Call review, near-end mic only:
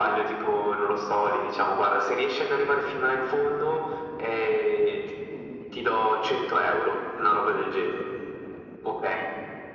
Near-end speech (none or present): none